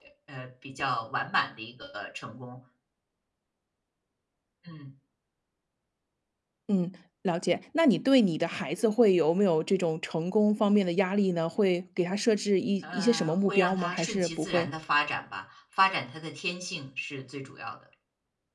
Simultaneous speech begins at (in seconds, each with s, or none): 12.8 s